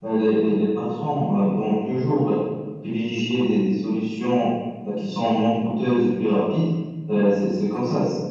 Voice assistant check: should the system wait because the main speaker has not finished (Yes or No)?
Yes